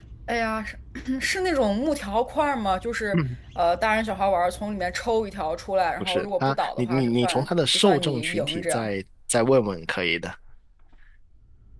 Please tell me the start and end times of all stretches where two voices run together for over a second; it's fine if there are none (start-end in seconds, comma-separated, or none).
6.0-8.9